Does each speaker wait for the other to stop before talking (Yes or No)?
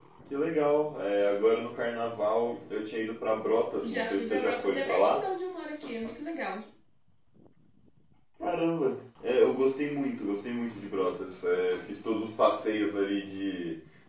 No